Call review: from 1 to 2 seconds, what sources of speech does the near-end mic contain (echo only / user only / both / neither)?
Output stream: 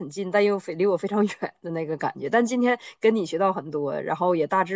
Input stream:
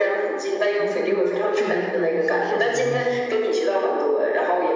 both